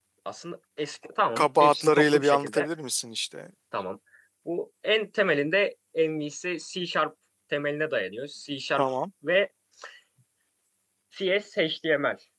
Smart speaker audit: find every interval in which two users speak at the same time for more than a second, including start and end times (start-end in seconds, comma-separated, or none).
1.4-2.7